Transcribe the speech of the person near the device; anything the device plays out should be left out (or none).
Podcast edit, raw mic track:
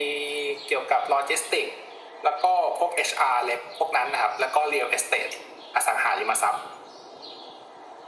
none